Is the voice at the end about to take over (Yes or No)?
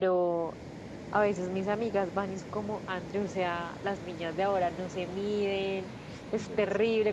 No